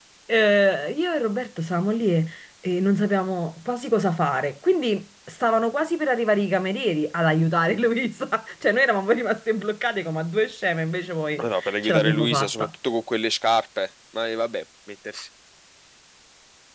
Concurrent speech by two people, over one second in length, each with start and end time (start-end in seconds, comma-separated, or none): 11.4-12.7